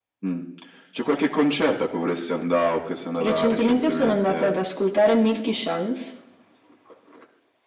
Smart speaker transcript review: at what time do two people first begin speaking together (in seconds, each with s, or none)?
3.1 s